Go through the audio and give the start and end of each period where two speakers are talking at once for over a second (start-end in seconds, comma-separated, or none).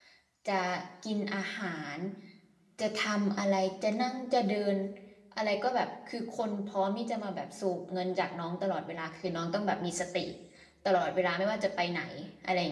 none